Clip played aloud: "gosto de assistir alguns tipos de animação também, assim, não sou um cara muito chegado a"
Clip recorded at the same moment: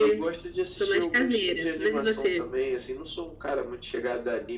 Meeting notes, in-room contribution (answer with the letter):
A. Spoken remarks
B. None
A